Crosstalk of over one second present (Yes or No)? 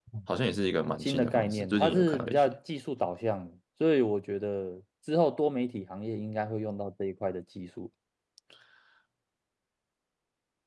Yes